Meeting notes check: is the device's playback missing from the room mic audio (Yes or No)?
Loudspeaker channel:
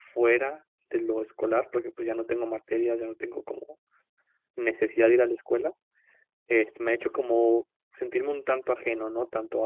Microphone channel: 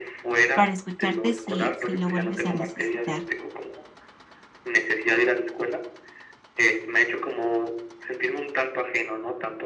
No